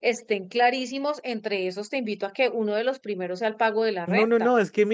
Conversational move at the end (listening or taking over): taking over